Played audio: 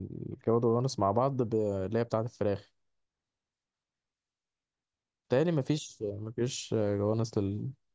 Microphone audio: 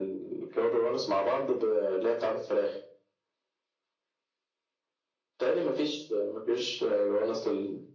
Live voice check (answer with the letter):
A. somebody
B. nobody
B